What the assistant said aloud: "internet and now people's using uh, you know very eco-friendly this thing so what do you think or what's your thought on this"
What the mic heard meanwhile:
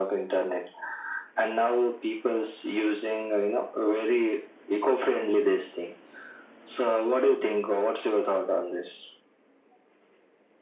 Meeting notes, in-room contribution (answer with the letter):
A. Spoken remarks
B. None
B